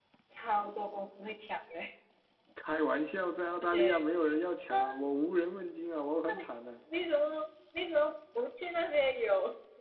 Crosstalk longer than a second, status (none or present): none